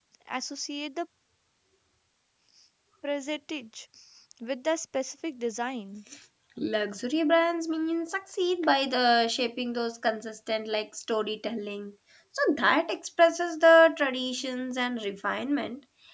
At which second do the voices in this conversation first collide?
none

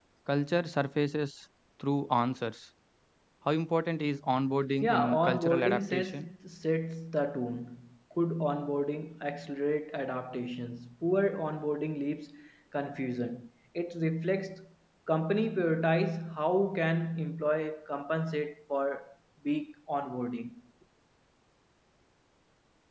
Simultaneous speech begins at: 4.8 s

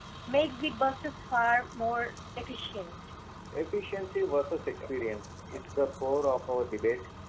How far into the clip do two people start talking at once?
none

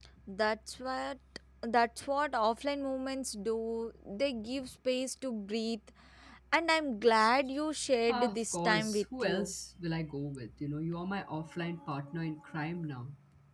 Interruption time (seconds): 8.1 s

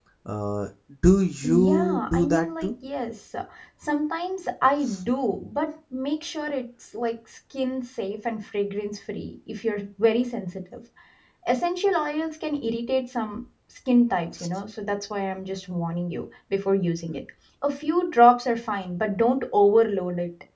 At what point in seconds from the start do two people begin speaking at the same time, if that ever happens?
1.4 s

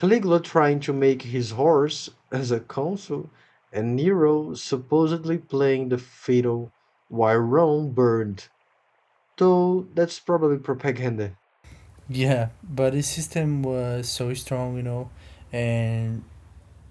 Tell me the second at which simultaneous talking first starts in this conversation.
none

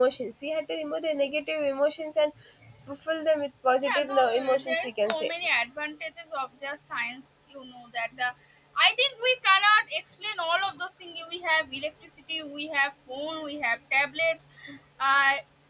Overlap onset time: 3.9 s

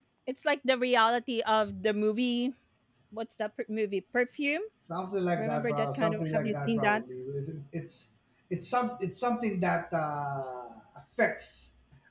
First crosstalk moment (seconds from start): 5.4 s

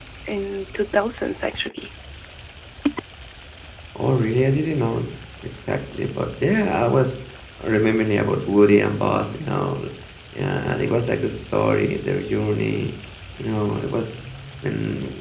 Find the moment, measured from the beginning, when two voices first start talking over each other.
none

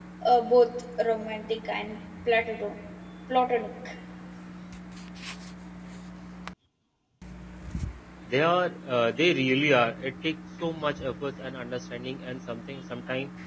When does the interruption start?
none

